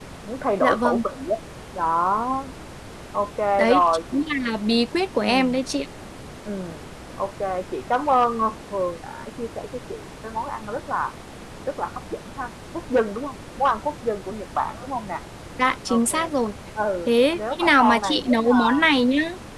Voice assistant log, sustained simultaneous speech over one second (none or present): present